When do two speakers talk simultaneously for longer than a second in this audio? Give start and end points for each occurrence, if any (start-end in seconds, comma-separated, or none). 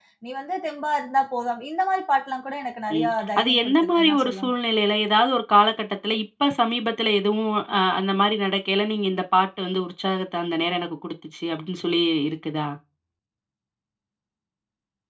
3.0-4.5